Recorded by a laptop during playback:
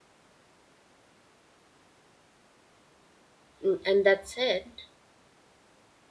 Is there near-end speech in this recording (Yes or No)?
Yes